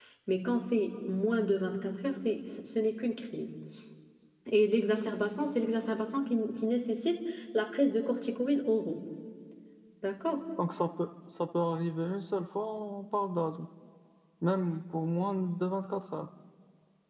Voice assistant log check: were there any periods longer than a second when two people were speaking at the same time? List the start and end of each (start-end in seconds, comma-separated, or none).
none